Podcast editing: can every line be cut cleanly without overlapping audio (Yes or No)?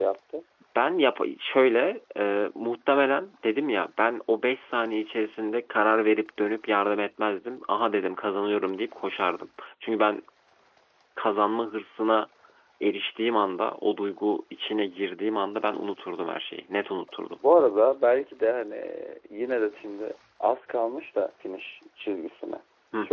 Yes